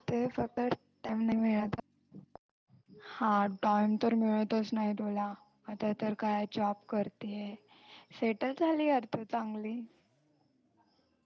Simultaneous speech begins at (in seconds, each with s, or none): none